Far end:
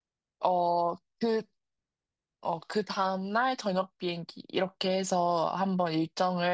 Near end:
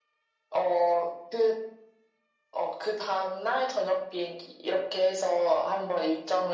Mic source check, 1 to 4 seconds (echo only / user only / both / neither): echo only